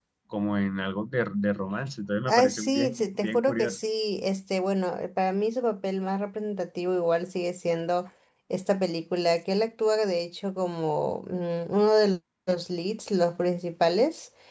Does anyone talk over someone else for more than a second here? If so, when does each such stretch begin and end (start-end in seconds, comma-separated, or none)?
2.3-3.8